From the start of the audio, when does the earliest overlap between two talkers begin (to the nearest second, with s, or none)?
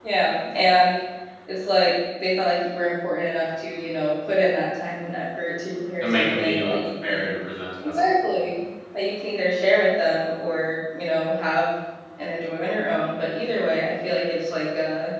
6 s